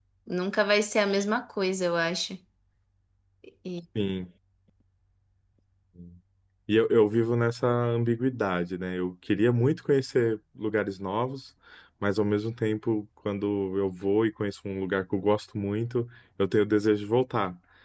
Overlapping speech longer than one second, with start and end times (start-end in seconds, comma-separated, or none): none